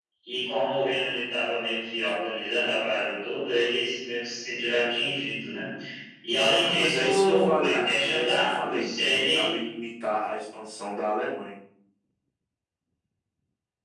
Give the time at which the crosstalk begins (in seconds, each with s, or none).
6.7 s